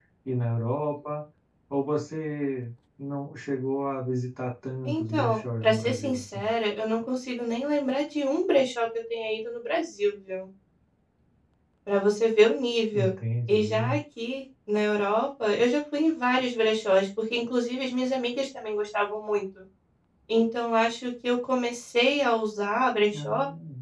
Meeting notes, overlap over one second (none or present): present